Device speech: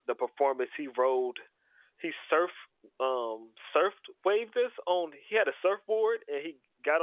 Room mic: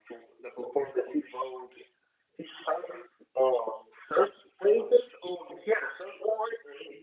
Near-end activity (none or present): none